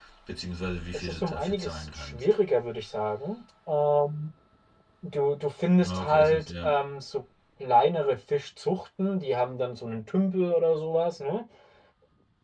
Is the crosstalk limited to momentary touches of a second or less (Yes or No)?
No